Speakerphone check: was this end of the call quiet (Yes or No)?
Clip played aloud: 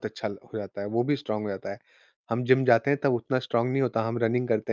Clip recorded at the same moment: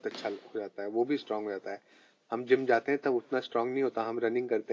Yes